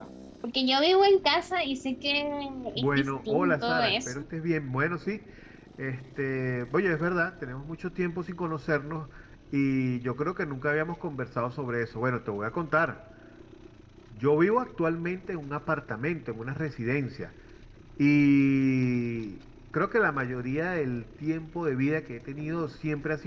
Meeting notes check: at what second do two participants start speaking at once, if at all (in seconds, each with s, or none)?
2.8 s